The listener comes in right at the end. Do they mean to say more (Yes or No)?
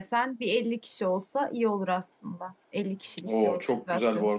Yes